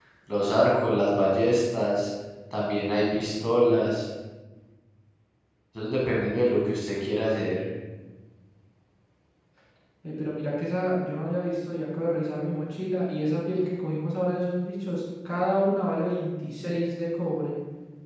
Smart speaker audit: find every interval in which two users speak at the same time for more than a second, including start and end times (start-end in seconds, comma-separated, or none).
none